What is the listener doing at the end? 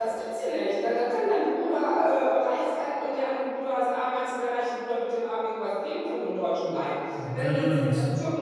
listening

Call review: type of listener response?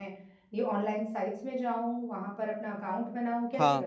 taking over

